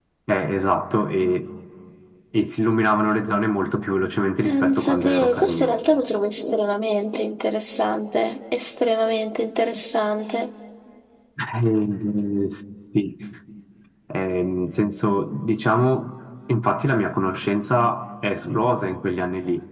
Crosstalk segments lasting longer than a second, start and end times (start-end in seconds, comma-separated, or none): 4.4-5.8